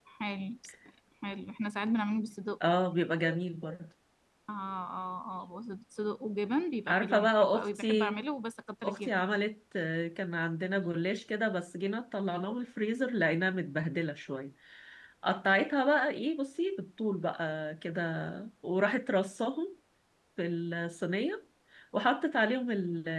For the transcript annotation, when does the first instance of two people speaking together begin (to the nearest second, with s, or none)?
7 s